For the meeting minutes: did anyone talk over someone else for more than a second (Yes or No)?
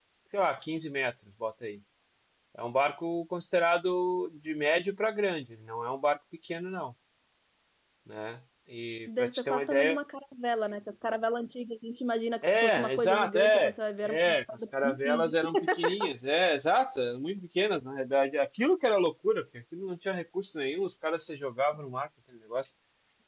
Yes